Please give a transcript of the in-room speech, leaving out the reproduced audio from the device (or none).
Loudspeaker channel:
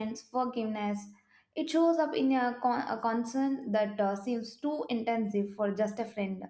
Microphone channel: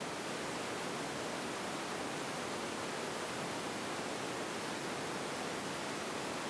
none